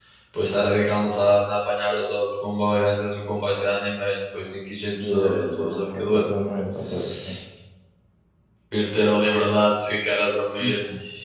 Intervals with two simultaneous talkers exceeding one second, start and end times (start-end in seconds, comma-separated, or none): 5.0-6.3